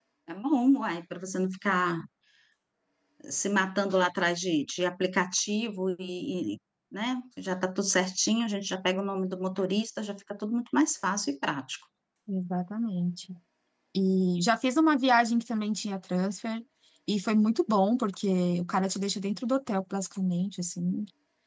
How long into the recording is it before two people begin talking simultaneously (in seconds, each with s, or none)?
none